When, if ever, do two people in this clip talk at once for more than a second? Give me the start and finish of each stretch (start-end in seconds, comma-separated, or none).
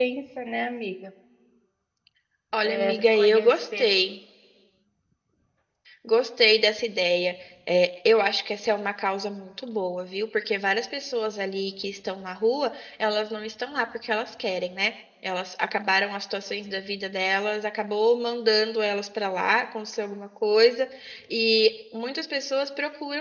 2.6-3.8